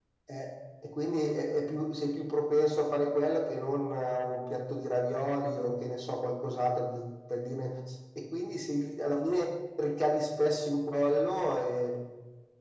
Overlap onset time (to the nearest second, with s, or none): none